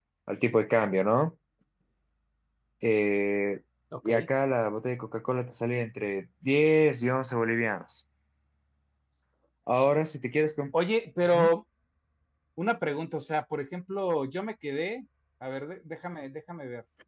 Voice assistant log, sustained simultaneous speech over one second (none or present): none